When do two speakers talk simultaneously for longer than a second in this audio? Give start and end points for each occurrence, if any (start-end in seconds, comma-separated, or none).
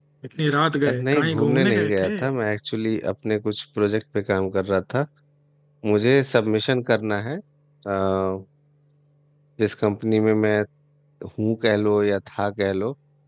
0.9-2.1